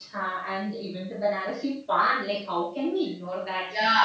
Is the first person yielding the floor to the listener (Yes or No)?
Yes